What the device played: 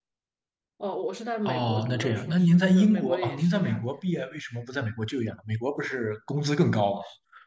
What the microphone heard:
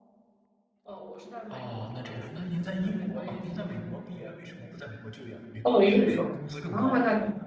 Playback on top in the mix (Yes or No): No